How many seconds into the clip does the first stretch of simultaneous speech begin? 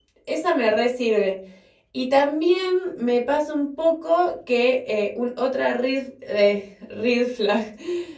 none

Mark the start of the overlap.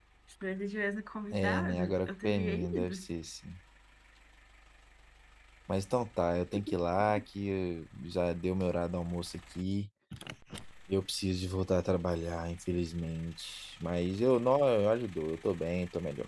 1.3 s

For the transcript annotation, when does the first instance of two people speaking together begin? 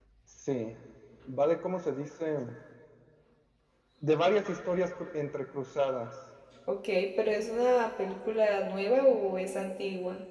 none

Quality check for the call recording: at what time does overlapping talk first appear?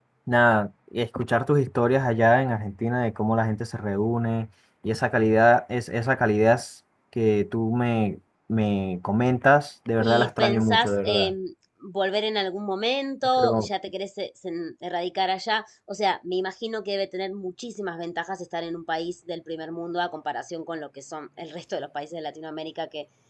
10.0 s

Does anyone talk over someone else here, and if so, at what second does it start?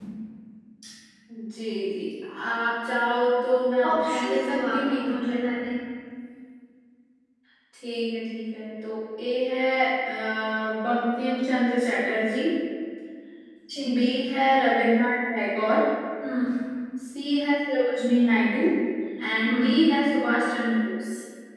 3.9 s

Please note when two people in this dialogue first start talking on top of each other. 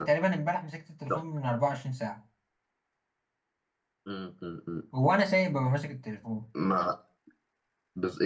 none

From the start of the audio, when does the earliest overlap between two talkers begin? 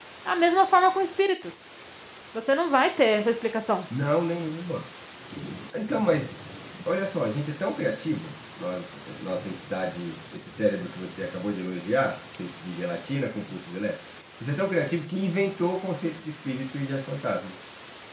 none

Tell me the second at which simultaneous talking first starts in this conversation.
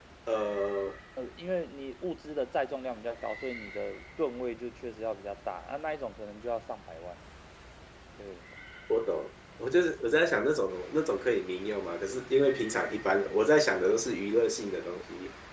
none

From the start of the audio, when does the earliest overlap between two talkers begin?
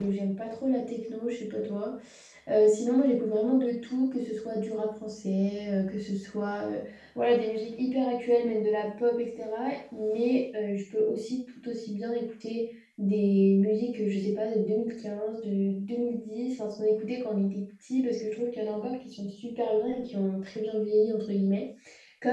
none

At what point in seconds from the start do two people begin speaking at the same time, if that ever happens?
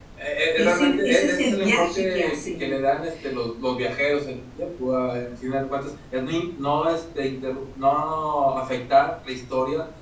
0.6 s

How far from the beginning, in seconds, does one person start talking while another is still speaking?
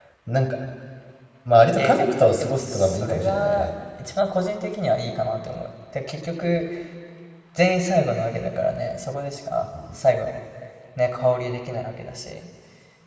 1.8 s

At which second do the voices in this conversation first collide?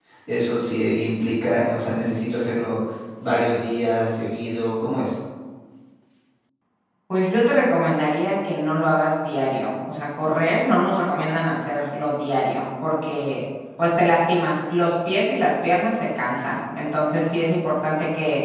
none

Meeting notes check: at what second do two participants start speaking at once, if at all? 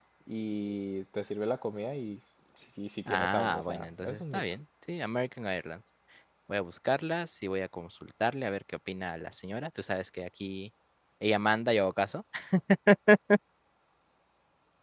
3.1 s

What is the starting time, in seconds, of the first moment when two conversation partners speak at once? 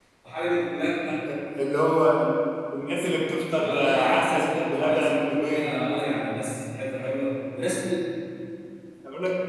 3.6 s

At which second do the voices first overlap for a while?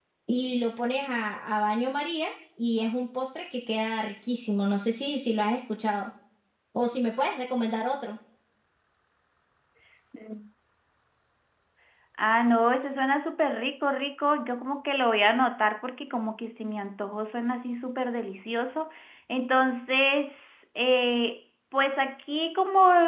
none

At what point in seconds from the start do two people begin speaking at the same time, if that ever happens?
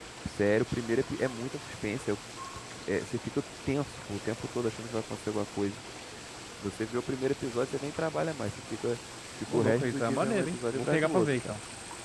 9.5 s

